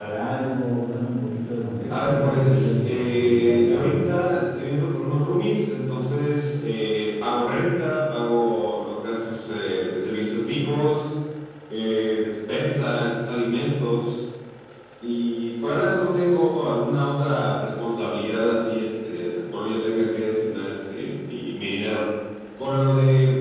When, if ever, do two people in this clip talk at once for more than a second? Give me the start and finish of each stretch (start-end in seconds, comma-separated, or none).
1.9-4.2